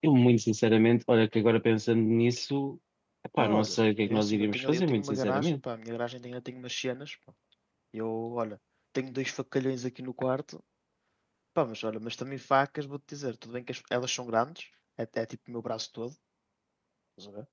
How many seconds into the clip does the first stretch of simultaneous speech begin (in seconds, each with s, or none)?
3.4 s